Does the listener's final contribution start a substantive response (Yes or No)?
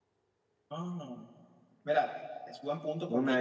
Yes